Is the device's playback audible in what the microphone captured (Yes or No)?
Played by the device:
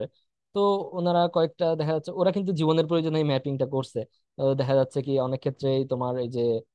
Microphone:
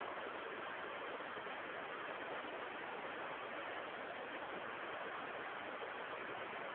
No